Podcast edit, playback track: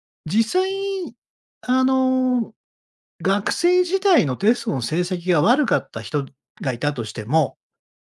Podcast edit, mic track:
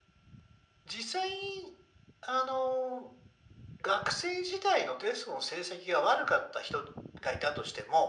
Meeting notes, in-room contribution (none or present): none